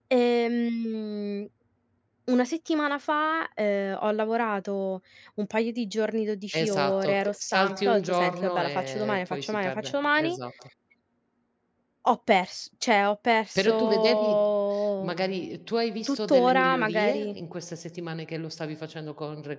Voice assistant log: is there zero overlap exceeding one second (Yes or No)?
No